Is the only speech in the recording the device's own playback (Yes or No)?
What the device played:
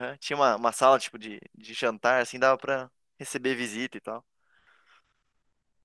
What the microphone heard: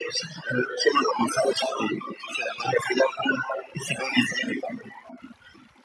Yes